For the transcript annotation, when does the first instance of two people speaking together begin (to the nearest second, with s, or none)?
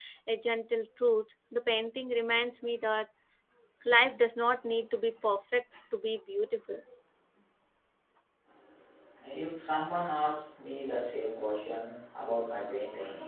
none